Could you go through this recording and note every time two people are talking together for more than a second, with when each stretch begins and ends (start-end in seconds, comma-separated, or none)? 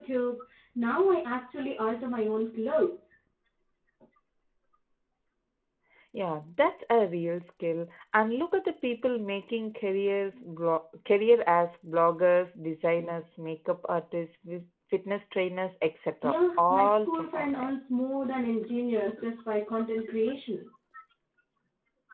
16.2-17.7